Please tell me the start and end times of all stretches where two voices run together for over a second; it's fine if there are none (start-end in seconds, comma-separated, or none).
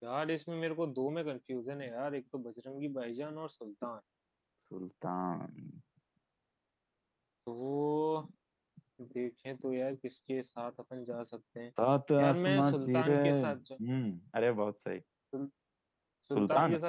12.2-13.6